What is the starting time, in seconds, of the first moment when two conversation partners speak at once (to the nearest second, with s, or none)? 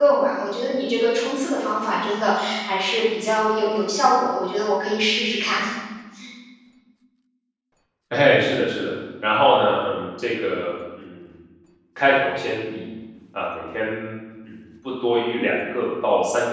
none